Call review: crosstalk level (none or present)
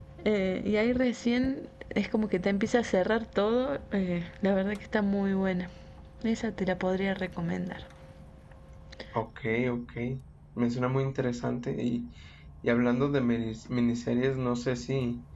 none